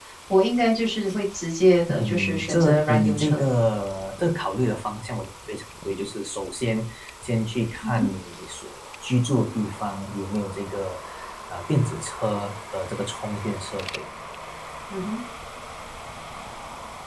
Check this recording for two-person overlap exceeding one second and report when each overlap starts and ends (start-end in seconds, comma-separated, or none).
2.0-3.5